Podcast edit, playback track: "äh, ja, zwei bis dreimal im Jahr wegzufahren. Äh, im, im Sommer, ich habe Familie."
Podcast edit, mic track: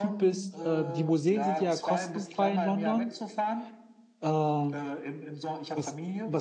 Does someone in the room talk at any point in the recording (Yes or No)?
Yes